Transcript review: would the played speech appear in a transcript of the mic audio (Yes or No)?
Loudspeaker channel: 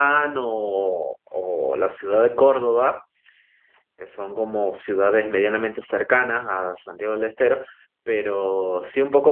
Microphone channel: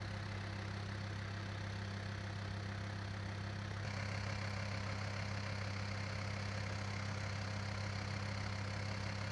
No